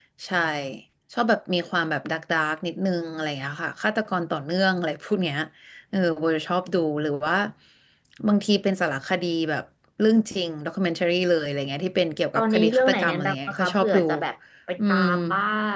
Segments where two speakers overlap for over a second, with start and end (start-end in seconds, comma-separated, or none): 12.4-14.0